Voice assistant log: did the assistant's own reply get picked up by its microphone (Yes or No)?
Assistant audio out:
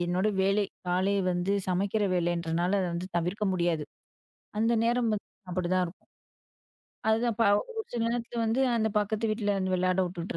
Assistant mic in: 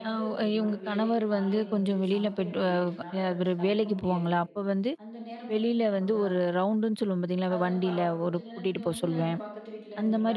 Yes